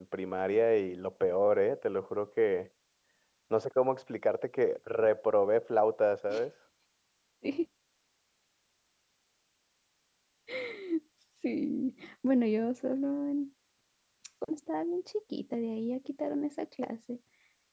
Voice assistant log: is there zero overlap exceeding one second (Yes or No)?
Yes